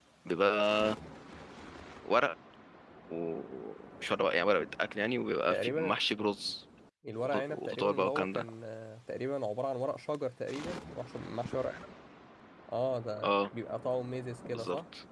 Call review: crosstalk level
present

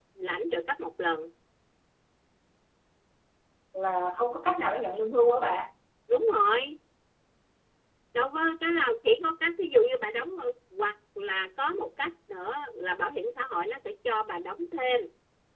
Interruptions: none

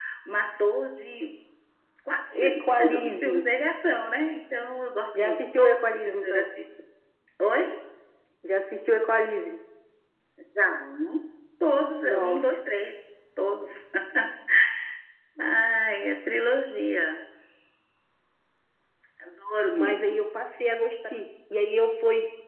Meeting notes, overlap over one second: present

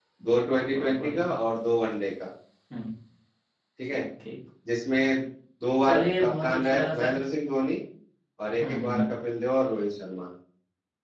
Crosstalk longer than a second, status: present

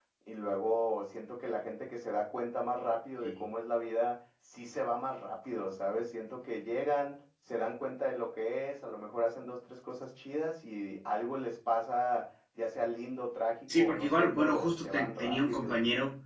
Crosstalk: present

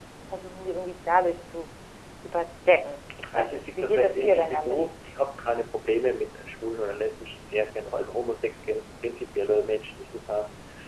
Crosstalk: present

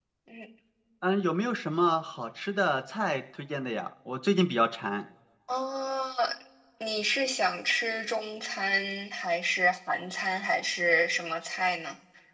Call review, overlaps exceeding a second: none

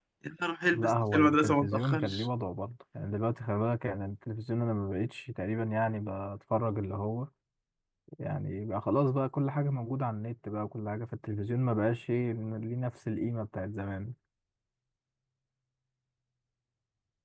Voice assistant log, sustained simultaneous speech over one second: present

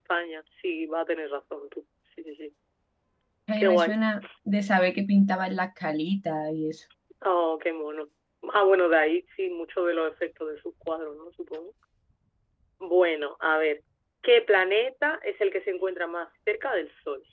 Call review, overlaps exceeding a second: none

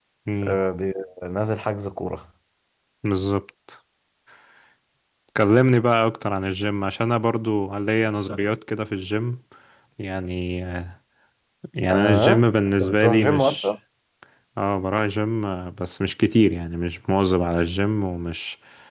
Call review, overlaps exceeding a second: present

